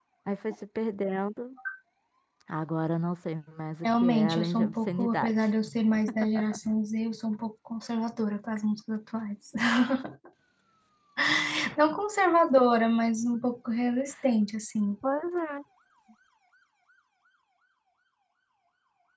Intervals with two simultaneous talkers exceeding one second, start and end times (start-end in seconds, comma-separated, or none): 3.8-5.3